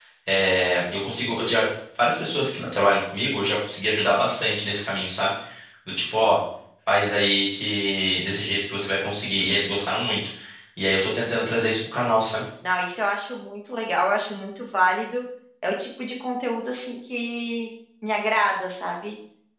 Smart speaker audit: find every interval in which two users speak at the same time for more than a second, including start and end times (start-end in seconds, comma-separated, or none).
none